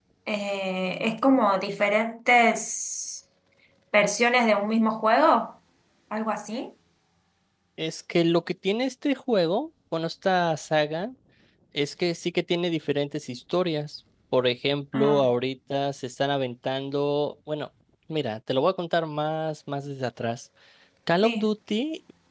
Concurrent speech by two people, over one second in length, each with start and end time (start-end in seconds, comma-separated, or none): none